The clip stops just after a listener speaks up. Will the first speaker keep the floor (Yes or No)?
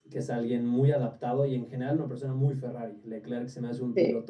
Yes